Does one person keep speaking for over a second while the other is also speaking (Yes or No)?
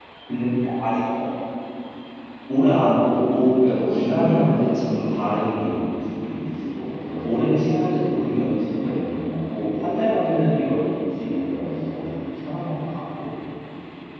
Yes